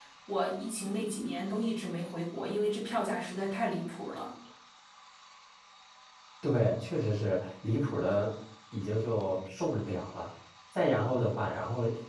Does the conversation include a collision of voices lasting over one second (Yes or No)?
No